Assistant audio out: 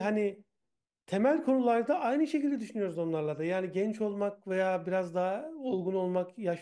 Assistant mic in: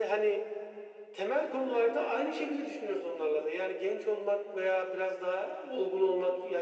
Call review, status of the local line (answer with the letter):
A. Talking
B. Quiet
B